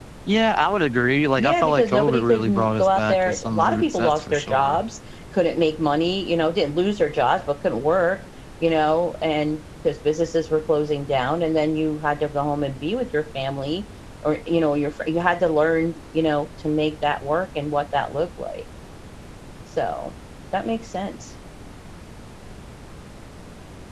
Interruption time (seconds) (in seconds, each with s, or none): 1.4 s